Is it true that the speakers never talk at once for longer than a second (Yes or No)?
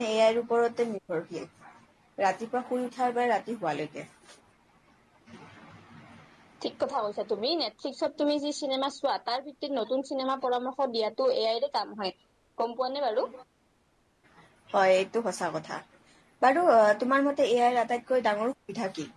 Yes